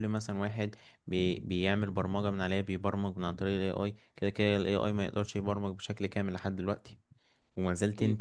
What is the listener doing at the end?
listening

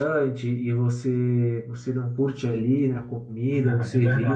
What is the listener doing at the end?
taking over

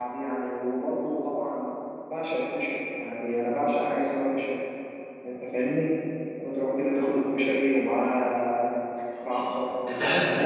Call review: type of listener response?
taking over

